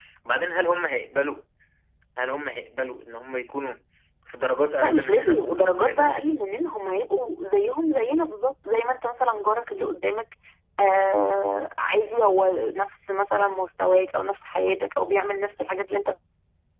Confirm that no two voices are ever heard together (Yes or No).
No